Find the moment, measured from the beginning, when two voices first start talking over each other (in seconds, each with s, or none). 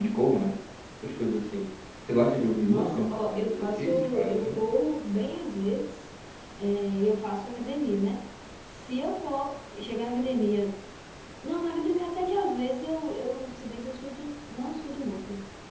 2.6 s